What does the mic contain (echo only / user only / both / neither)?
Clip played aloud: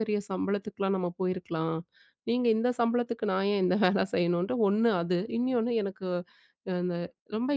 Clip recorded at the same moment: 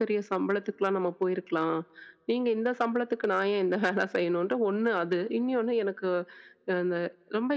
echo only